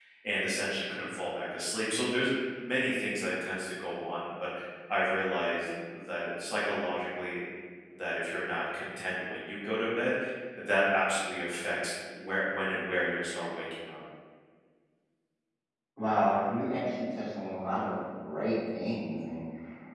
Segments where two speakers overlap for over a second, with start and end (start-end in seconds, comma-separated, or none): none